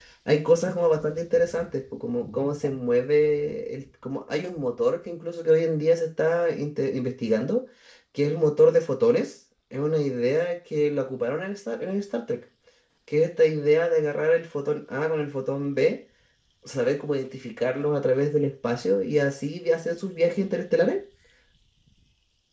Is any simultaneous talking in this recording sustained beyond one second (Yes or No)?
No